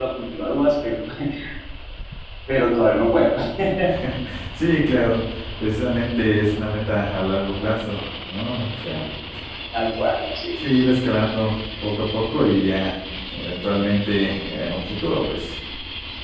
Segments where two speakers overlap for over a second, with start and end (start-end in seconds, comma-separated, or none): none